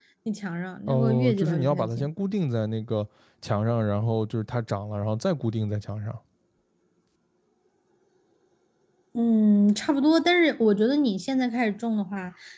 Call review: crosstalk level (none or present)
present